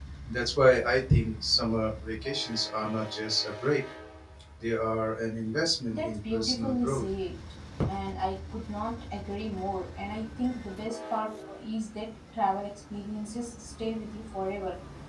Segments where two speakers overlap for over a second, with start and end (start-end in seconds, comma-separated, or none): 5.9-7.1